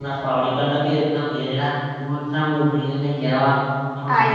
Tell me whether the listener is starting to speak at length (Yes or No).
No